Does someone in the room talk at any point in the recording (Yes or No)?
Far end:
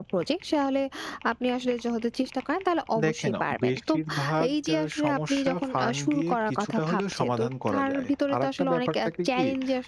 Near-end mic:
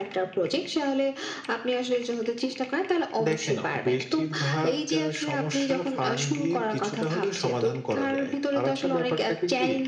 No